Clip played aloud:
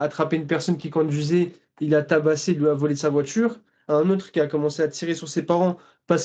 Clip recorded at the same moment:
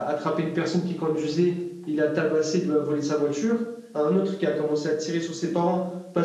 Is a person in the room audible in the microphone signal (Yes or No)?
No